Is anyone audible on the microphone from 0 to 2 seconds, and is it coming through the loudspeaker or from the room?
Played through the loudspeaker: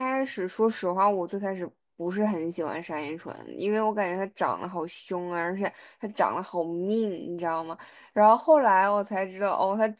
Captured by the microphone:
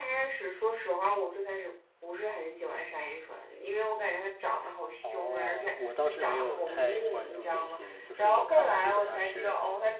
echo only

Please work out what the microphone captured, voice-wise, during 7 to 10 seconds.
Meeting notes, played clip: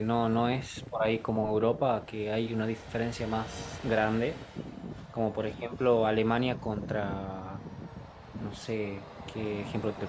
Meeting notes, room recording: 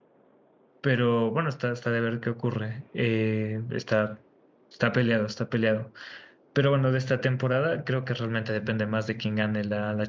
user only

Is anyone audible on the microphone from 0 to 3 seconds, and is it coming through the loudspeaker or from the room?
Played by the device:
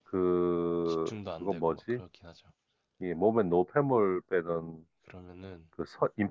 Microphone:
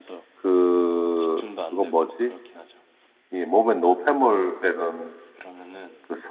echo only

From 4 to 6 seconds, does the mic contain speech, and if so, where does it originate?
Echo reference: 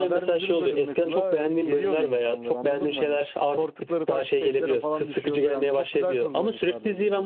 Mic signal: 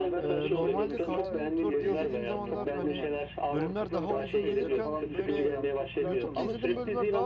both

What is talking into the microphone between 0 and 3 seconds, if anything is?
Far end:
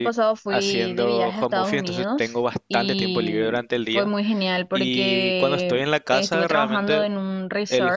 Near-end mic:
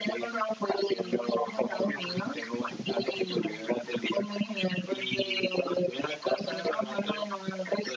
echo only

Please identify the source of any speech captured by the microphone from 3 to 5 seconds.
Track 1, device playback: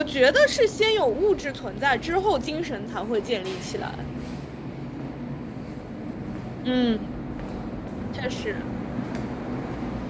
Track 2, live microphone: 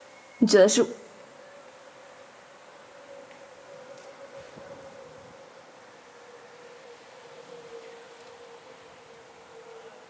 neither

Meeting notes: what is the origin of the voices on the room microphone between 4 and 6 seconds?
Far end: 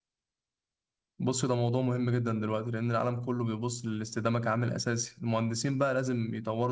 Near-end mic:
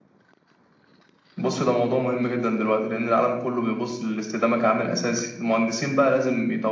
echo only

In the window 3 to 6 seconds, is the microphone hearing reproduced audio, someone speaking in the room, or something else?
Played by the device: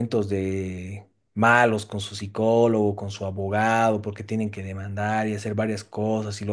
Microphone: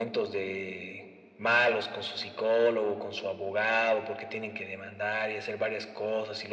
echo only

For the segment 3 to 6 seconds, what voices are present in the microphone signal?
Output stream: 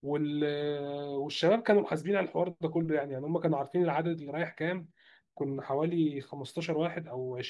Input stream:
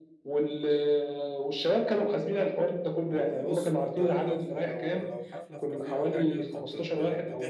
both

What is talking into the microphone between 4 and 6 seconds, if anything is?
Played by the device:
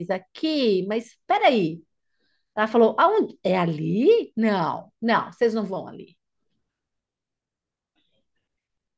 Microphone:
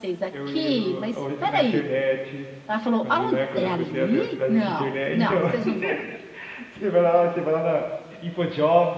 both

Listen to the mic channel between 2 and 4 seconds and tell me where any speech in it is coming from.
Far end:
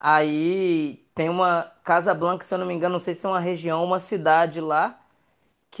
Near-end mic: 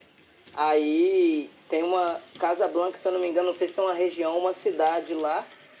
echo only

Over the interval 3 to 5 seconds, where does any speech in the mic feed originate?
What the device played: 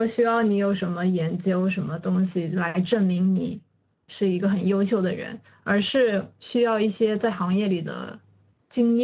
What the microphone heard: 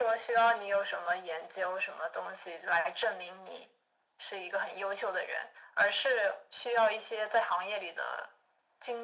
echo only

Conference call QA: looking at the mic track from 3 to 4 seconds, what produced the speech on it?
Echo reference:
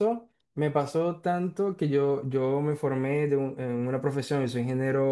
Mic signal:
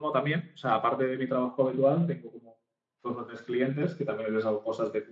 user only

